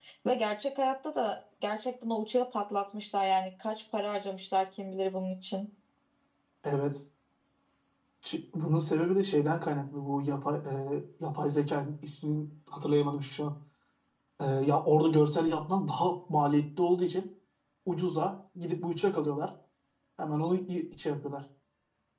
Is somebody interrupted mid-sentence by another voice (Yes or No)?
No